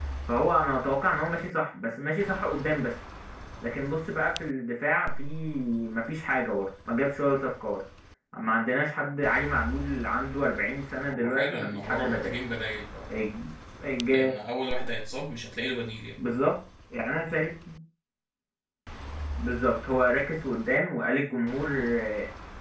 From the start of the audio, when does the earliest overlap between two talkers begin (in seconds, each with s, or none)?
11.1 s